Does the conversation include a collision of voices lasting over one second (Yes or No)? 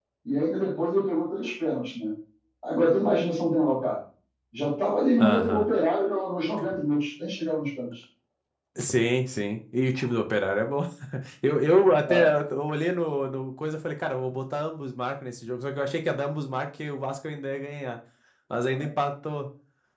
No